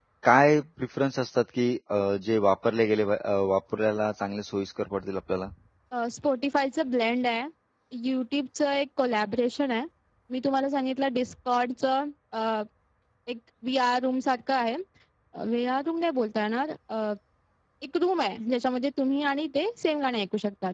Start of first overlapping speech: none

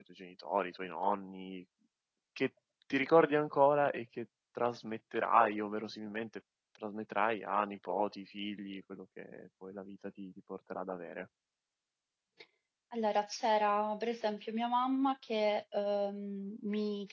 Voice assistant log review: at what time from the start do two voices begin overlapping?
none

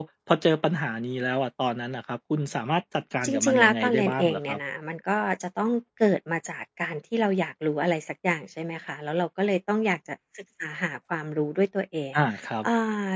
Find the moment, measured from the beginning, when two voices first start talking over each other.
3.2 s

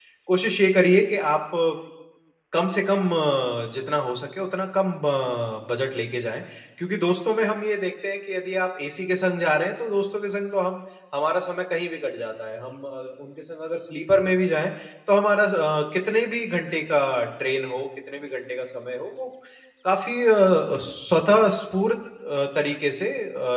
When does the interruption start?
none

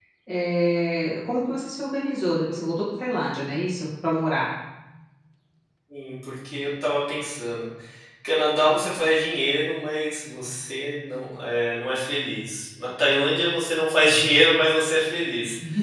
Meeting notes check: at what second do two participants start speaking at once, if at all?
none

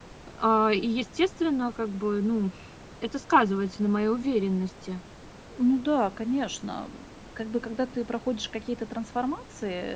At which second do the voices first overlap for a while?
none

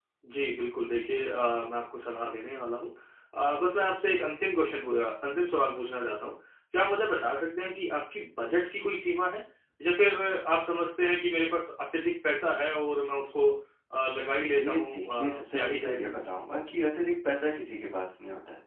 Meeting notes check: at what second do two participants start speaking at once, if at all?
14.5 s

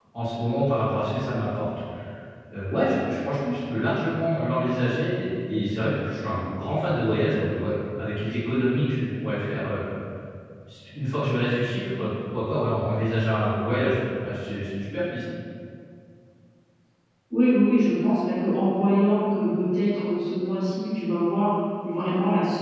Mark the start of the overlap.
none

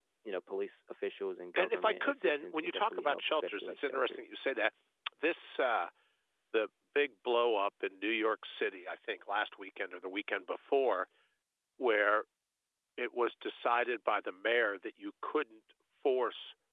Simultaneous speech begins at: 1.6 s

